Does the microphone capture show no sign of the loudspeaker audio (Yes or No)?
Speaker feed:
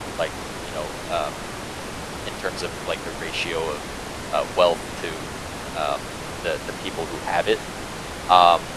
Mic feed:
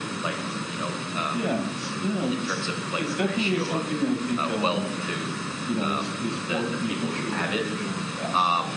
No